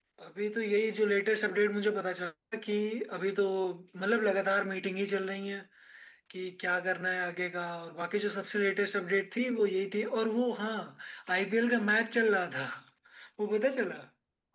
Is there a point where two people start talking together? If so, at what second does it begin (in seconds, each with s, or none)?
none